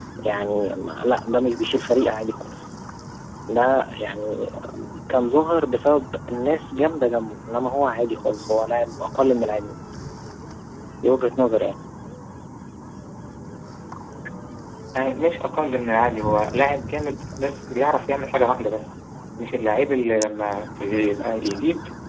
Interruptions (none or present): none